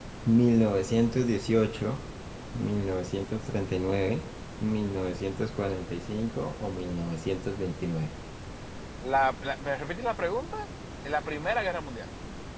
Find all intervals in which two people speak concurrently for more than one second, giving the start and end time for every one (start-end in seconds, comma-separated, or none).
none